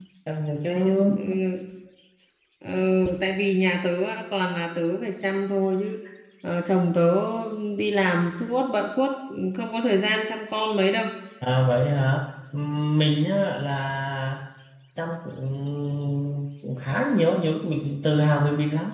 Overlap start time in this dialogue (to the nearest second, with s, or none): none